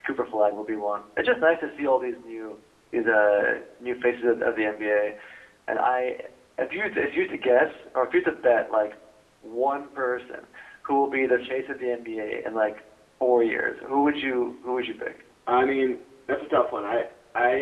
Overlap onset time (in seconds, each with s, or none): none